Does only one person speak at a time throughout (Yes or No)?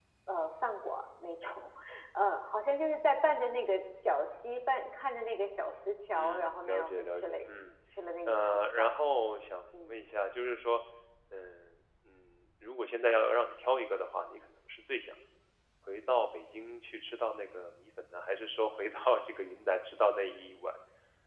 No